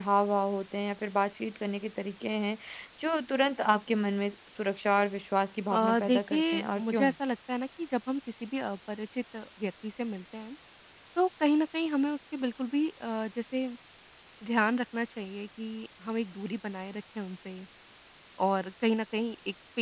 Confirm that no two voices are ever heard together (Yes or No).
No